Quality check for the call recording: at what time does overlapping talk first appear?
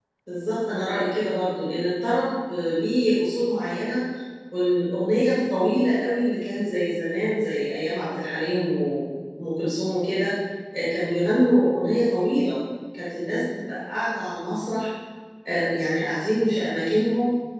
none

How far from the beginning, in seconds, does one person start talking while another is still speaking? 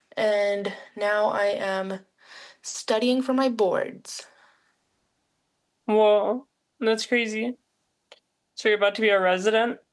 none

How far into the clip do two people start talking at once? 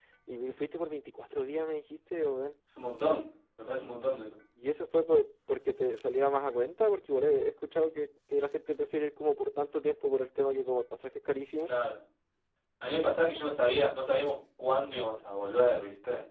none

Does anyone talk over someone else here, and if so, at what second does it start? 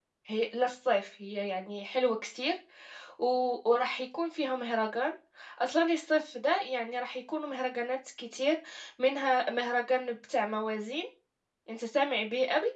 none

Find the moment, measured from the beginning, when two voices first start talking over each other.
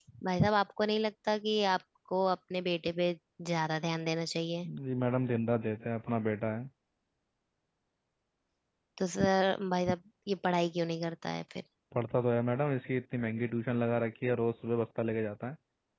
none

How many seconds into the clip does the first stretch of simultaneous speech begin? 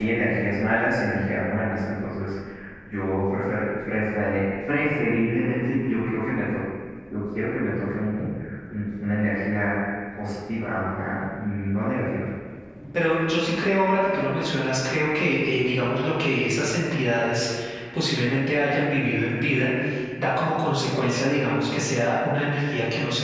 none

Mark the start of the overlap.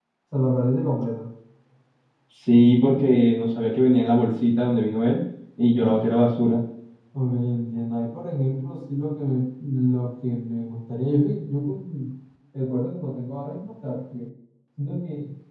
none

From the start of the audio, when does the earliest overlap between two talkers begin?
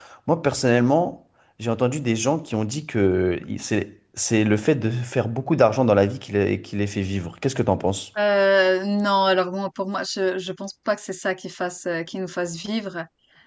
none

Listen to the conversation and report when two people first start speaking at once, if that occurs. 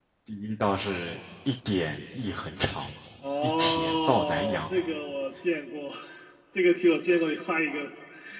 3.4 s

